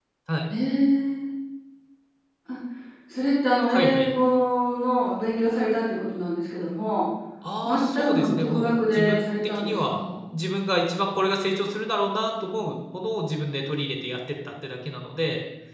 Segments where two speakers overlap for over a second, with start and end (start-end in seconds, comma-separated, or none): 7.7-9.9